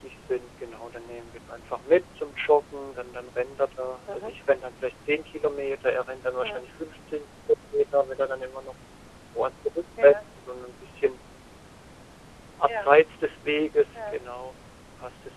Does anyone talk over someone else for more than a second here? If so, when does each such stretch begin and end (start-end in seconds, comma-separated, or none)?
none